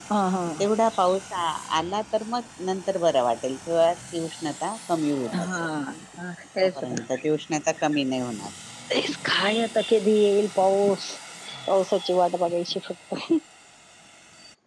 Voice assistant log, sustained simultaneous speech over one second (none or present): none